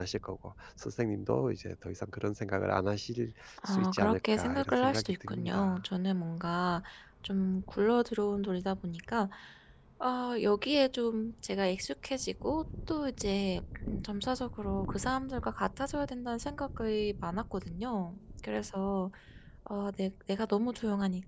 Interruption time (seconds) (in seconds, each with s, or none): 3.6 s